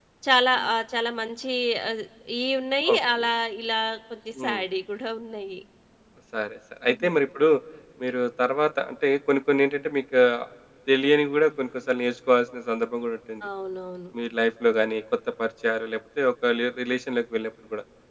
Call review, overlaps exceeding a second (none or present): none